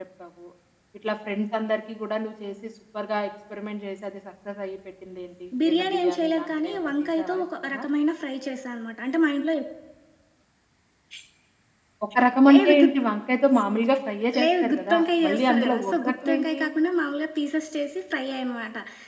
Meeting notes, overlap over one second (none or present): present